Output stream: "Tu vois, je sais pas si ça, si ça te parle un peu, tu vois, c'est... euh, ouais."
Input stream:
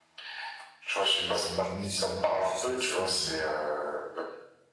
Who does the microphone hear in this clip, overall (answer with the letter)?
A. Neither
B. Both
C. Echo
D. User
B